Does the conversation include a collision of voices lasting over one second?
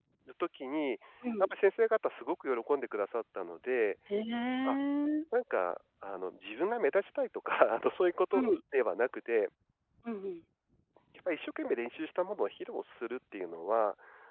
No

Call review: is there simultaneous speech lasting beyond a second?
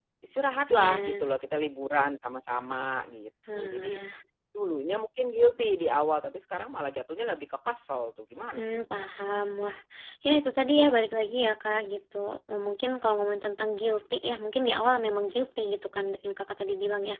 No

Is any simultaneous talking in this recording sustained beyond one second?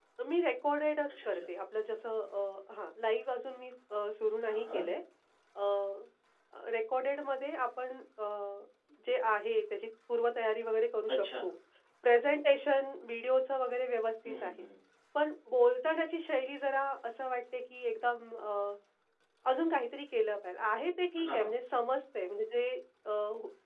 No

